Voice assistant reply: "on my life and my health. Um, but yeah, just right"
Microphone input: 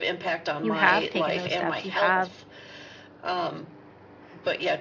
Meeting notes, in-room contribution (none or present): present